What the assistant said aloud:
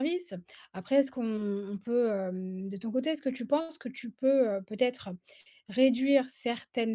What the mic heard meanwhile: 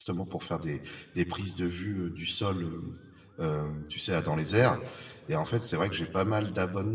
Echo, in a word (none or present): none